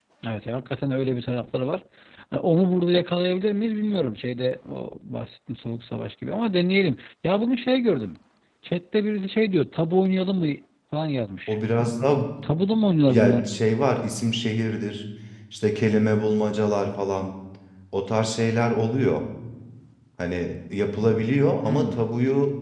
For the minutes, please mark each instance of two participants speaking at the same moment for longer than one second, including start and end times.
none

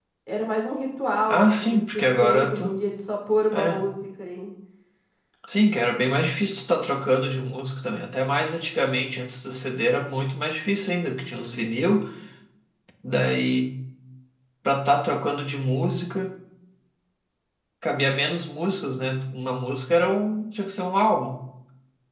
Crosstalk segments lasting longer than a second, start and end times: 1.3-2.8

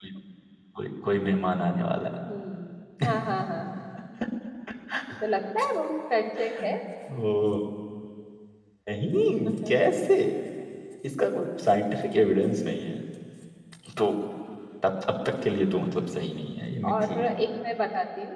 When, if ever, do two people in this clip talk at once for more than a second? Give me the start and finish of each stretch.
none

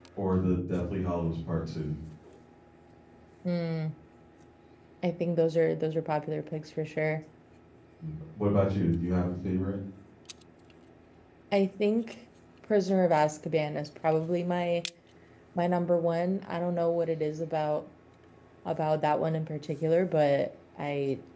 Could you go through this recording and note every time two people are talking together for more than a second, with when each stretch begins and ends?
none

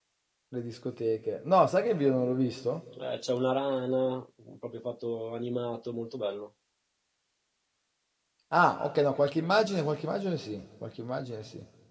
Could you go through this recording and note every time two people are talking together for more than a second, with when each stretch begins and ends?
none

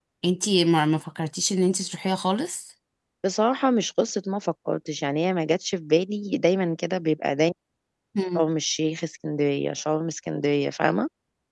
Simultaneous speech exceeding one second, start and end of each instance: none

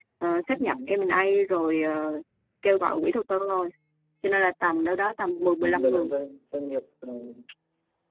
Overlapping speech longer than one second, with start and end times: none

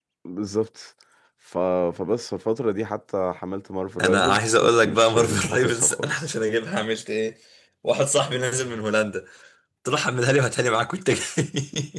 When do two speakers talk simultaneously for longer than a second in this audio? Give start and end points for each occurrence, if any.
4.0-6.3

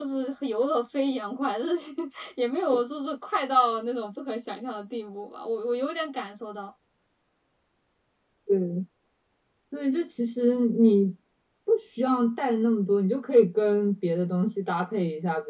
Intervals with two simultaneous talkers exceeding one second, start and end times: none

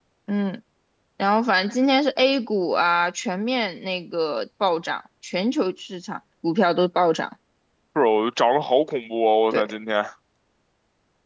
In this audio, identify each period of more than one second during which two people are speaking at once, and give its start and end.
none

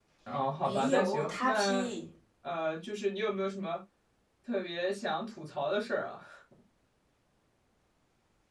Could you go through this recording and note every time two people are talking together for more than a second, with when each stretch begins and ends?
0.6-1.9

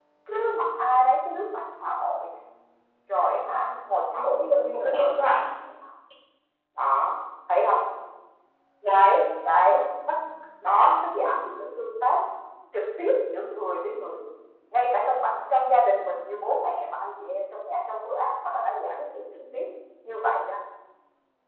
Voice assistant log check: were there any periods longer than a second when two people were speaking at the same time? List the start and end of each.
4.1-5.4

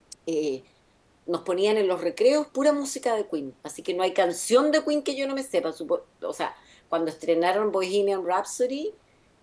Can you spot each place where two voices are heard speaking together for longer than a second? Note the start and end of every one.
none

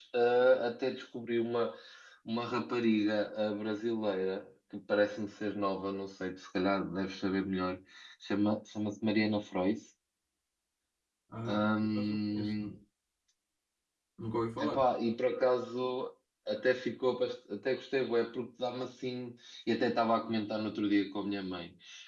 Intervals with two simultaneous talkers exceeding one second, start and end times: 11.5-12.8

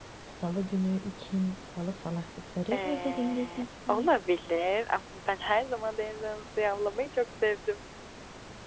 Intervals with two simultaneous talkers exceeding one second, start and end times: 2.7-4.1

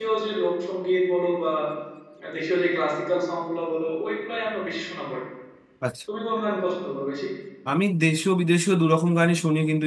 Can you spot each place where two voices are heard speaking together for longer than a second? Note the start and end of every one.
none

